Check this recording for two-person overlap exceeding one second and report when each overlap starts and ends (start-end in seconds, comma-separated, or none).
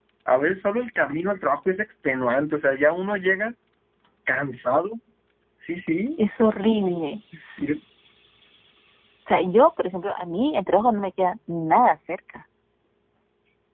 none